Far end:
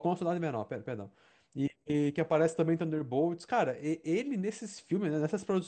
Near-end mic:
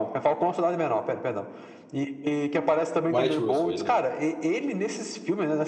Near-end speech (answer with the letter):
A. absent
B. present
B